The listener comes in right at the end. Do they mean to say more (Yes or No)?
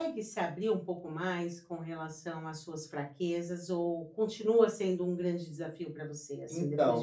Yes